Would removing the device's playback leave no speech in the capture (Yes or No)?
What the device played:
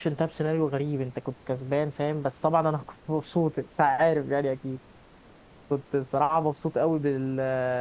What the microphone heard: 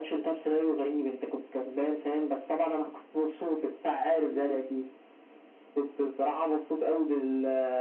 Yes